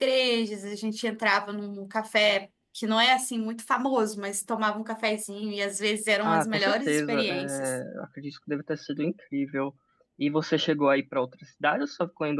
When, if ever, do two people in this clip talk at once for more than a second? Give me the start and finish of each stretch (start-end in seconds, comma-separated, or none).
6.2-7.8